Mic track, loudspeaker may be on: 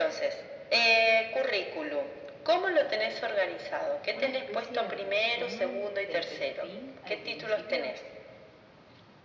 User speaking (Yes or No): Yes